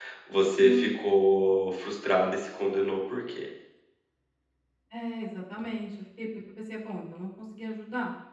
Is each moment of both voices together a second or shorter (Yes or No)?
Yes